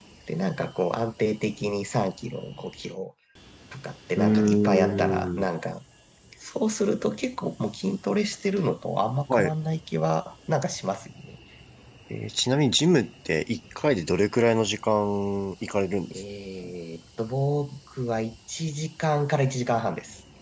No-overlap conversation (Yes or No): No